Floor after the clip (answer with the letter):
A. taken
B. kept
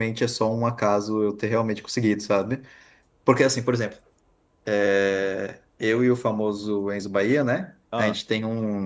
B